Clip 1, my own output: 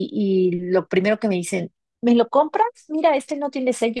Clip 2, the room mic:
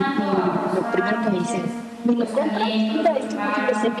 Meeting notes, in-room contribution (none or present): present